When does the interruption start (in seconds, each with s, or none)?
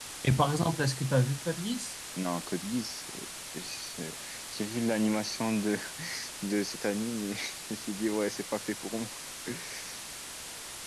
none